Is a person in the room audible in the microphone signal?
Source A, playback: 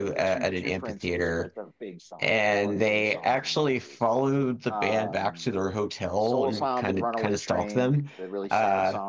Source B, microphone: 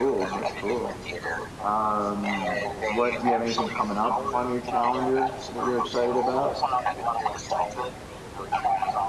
Yes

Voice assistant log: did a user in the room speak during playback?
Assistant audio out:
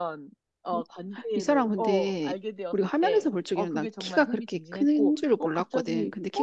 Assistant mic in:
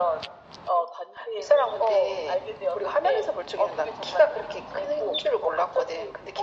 No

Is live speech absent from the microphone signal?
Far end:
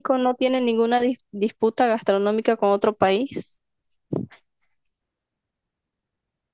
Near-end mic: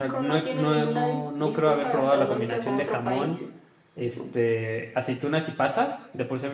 No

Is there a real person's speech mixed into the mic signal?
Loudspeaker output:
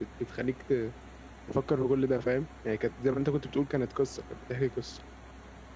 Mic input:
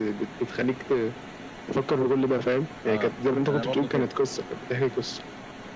Yes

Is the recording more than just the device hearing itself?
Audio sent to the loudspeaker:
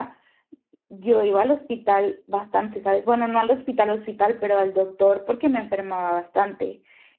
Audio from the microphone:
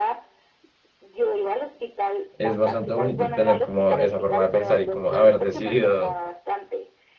Yes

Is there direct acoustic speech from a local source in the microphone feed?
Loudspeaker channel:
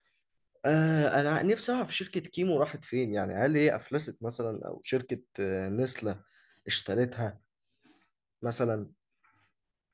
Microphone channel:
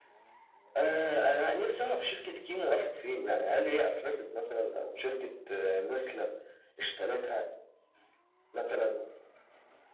No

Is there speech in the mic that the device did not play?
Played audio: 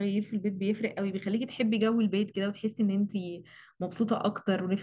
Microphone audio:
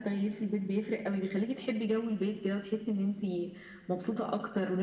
No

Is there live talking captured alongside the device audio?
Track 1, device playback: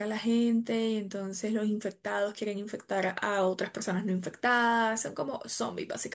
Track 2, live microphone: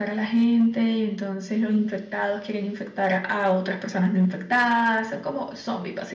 No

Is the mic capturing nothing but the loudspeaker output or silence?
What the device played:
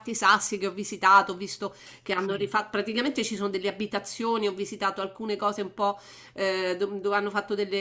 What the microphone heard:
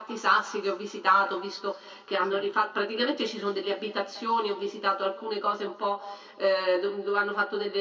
Yes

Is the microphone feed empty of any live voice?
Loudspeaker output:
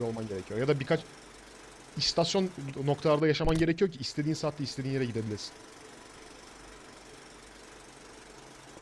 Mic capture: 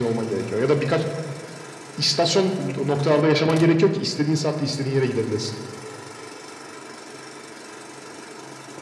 Yes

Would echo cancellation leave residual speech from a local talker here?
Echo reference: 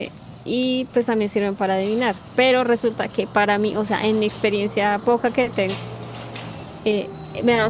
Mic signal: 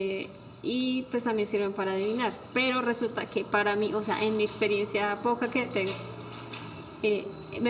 No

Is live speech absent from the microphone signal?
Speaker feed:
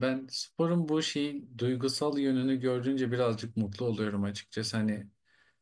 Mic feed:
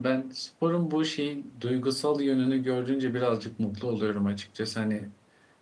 Yes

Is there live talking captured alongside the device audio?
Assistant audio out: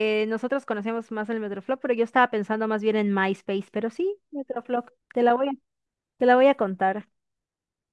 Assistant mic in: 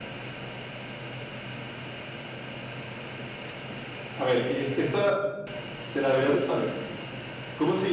Yes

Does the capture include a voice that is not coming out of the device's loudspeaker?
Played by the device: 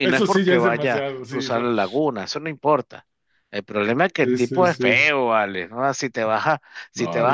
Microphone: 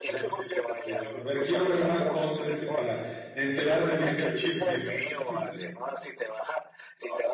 Yes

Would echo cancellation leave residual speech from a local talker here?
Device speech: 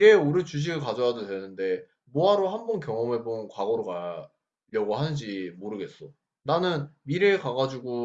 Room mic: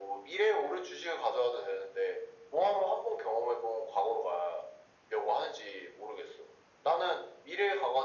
No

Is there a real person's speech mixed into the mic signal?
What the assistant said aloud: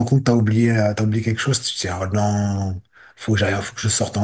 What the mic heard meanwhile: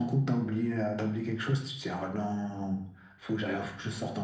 No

